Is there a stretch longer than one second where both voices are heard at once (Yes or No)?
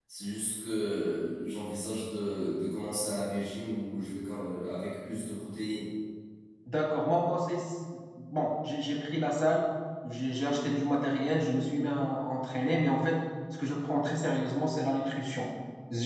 No